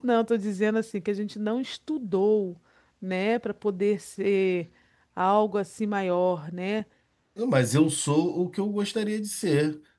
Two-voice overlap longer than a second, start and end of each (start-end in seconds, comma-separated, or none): none